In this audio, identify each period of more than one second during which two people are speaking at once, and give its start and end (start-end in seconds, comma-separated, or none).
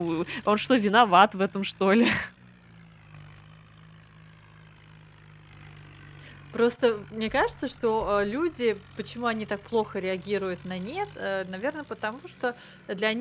none